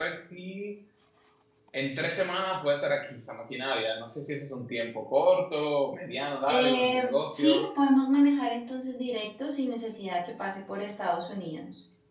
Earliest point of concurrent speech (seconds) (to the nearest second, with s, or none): 6 s